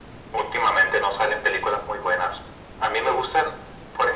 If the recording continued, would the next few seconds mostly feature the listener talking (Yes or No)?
No